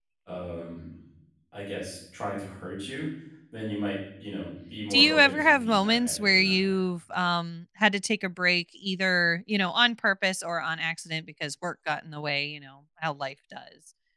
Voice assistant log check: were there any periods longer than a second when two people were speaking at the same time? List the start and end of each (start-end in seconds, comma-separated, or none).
4.9-6.7